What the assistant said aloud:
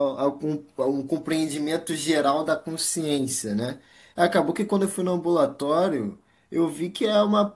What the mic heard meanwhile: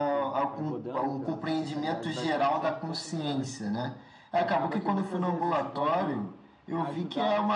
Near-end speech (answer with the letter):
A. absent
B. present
B